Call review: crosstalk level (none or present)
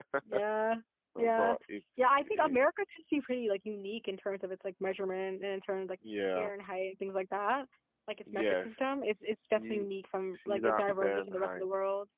present